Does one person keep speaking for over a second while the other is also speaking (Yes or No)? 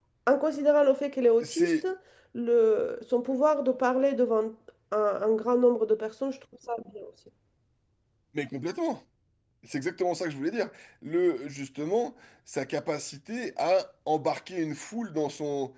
No